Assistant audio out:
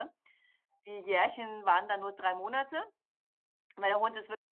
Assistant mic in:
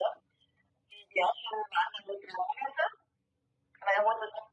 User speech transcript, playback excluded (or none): none